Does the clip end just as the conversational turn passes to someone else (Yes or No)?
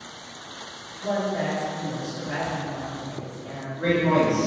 Yes